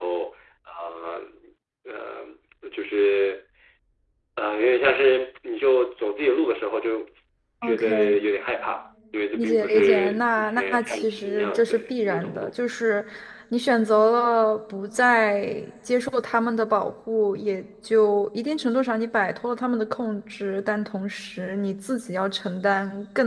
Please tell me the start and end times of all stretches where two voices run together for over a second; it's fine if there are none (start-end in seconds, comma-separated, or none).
9.3-12.5